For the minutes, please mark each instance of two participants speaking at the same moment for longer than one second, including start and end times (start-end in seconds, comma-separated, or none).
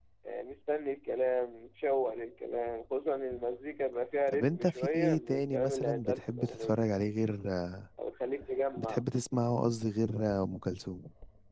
4.3-6.8